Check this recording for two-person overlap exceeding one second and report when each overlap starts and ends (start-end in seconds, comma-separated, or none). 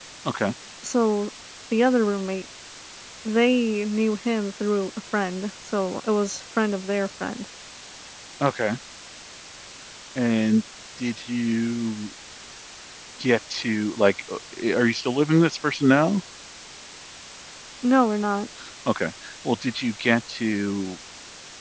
none